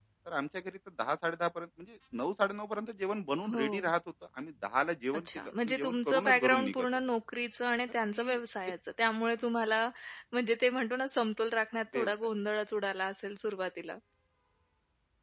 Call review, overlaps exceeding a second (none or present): present